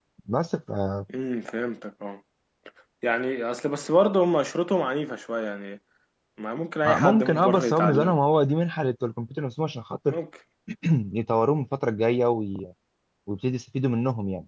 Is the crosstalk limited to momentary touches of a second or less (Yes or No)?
No